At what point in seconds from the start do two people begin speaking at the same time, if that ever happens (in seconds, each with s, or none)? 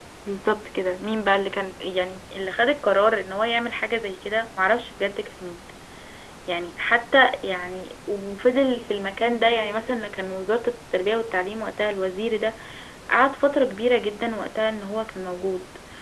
none